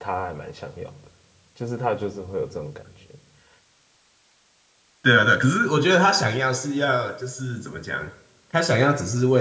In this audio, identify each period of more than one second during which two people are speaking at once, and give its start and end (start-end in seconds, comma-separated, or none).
none